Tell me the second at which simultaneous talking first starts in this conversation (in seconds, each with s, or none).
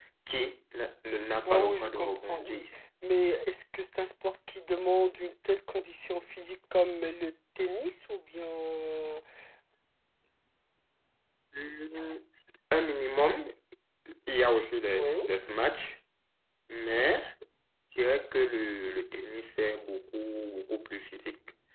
1.5 s